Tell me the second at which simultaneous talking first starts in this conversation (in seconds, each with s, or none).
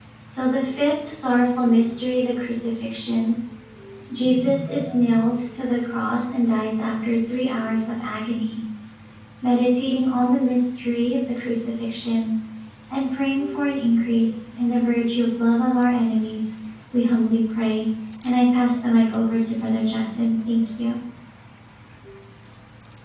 none